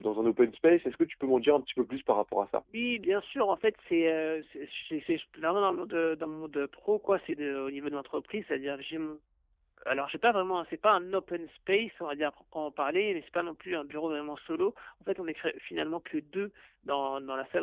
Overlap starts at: none

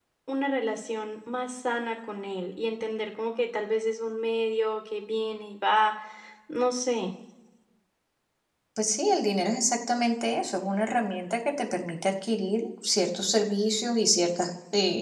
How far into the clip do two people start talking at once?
none

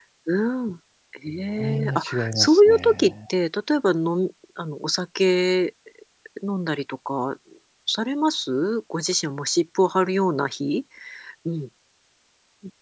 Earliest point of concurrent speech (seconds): 1.6 s

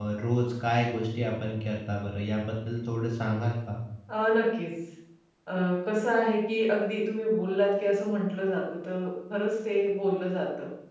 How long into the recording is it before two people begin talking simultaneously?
none

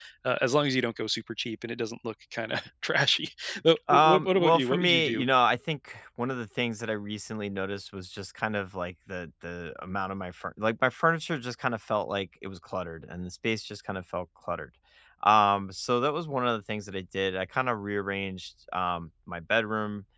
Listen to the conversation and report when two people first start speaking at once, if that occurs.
3.9 s

